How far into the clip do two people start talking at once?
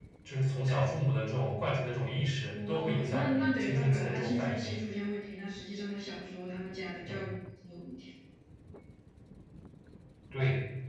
2.5 s

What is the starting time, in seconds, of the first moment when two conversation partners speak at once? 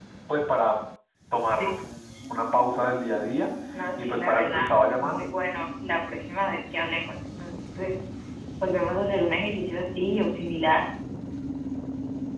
4.0 s

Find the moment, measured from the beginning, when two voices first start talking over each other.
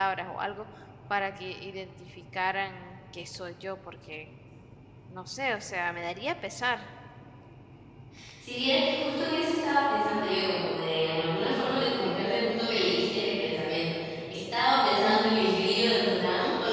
none

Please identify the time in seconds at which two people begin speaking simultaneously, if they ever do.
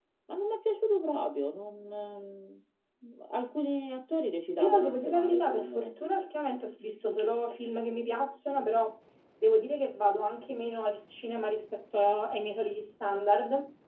4.6 s

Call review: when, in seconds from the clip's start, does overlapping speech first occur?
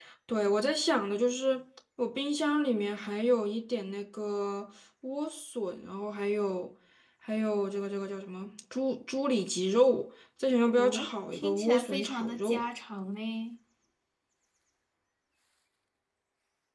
10.8 s

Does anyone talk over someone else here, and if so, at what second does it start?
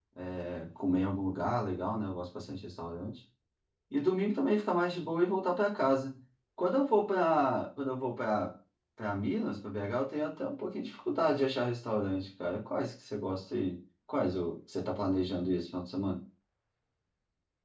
none

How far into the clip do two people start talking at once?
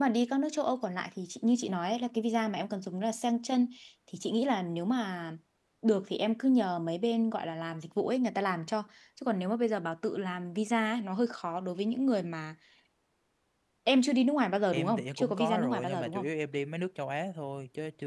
14.7 s

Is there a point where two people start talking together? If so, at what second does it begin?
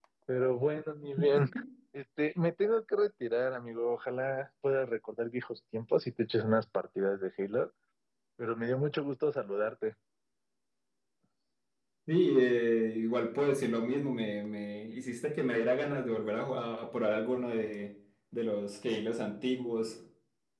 none

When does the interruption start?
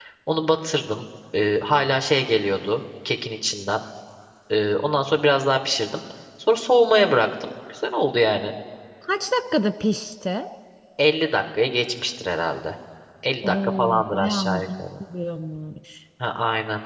13.4 s

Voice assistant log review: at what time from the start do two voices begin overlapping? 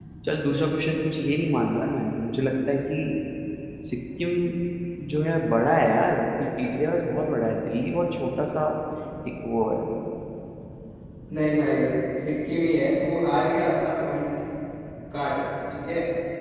none

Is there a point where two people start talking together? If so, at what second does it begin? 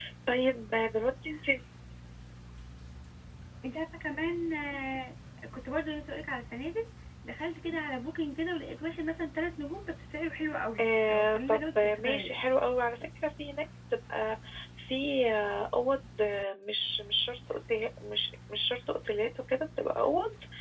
10.8 s

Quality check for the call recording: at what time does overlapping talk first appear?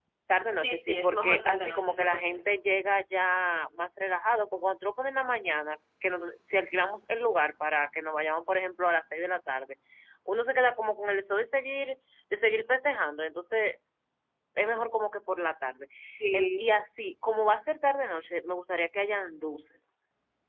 0.6 s

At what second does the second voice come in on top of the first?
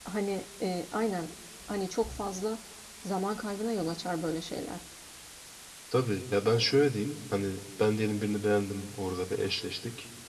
none

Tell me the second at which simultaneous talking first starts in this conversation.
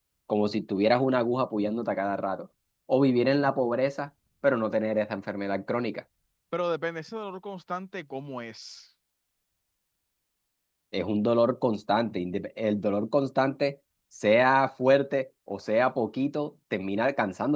none

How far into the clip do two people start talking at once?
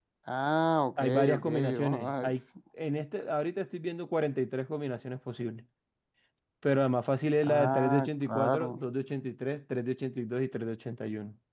1.0 s

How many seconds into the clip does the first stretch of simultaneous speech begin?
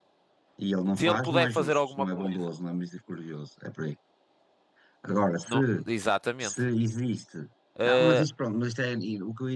1.0 s

